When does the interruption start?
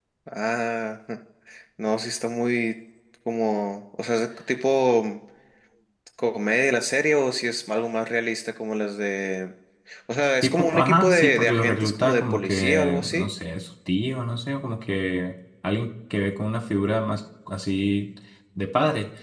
10.4 s

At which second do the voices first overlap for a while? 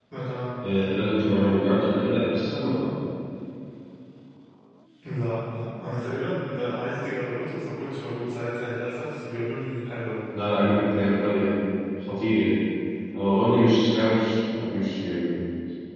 none

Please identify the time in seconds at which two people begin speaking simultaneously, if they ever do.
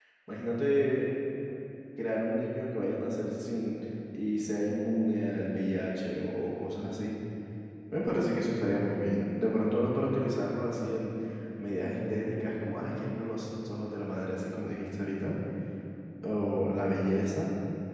none

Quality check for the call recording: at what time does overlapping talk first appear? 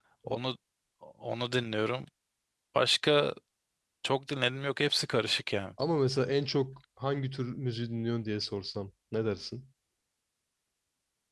none

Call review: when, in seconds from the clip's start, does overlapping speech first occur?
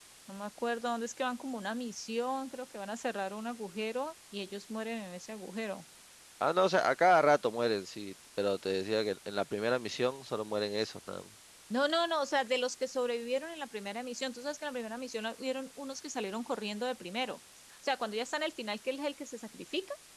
none

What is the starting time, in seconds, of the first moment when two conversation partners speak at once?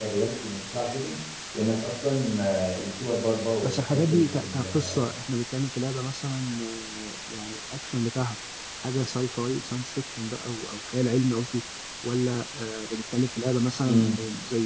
3.6 s

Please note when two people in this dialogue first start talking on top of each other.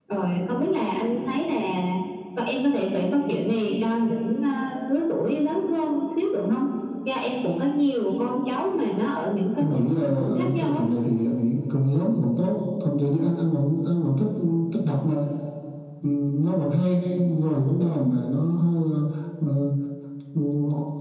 9.6 s

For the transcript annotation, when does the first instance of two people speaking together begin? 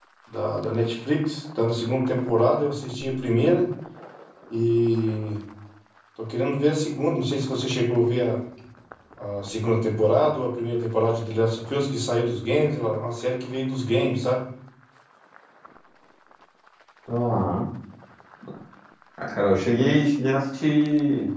none

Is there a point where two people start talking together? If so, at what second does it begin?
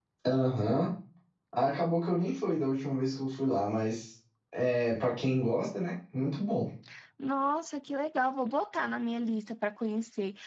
none

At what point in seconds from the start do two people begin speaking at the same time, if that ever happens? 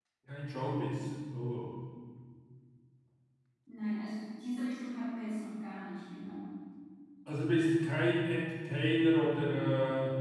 none

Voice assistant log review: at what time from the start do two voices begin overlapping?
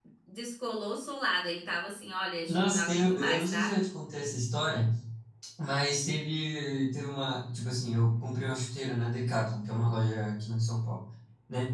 2.5 s

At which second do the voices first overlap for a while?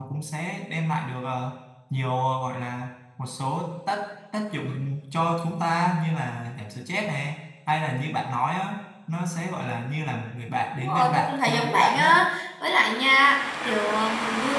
10.8 s

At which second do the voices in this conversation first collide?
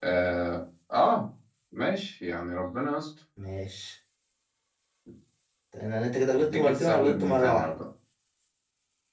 6.3 s

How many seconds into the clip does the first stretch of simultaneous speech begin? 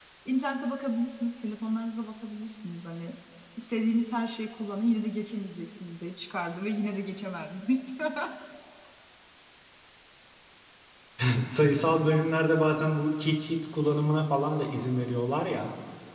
none

